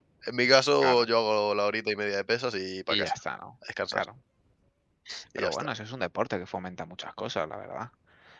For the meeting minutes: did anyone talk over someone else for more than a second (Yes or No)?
No